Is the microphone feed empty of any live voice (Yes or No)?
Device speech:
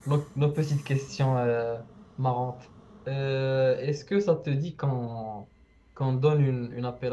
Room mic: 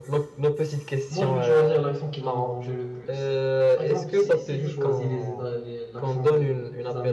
No